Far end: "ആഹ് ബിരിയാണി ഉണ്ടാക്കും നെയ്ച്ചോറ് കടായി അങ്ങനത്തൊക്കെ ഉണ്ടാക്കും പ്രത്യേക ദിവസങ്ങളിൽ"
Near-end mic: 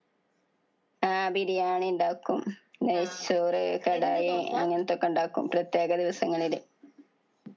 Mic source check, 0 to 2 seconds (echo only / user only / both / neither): echo only